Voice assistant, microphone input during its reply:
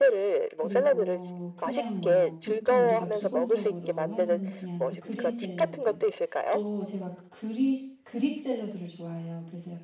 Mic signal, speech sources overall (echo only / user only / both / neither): both